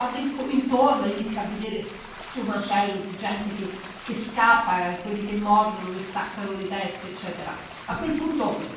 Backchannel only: Yes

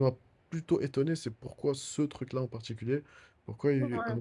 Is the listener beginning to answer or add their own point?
No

